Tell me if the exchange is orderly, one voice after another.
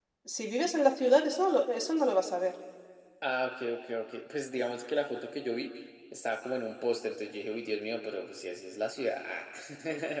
Yes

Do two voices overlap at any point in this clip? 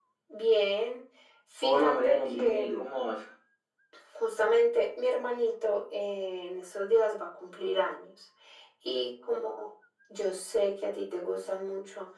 Yes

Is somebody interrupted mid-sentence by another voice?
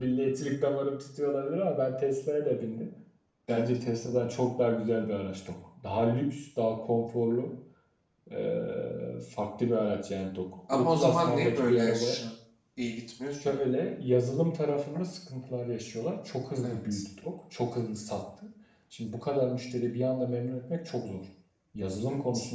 Yes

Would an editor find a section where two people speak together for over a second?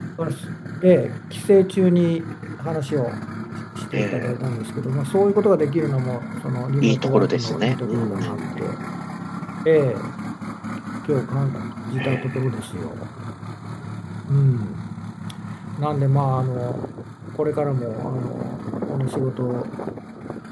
Yes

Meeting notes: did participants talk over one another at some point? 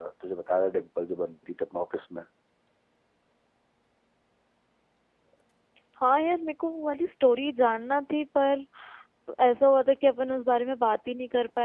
No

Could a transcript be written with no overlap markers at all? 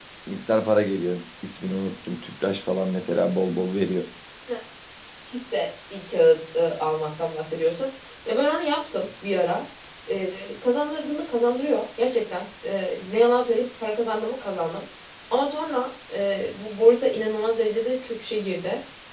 Yes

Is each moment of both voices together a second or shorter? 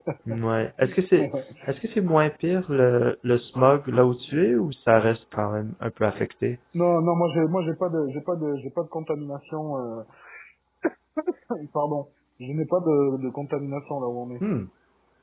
Yes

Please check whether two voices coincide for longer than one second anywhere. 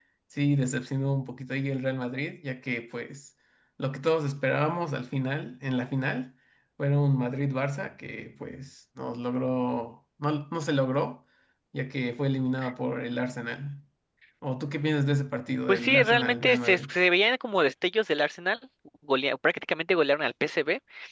Yes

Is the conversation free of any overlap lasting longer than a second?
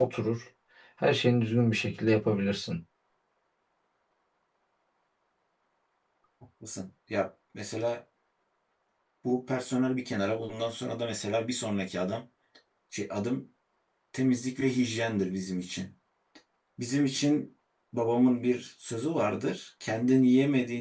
Yes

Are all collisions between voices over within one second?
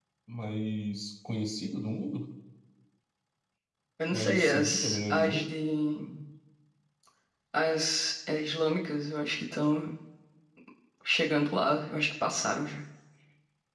No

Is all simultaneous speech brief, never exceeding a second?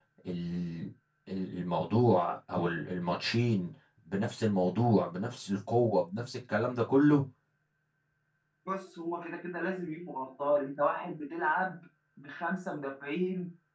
Yes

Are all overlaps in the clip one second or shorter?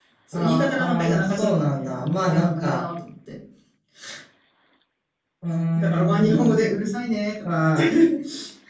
No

